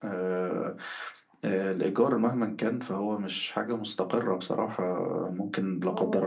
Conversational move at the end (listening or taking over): listening